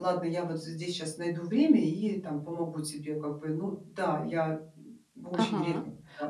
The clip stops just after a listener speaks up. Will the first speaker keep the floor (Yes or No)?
No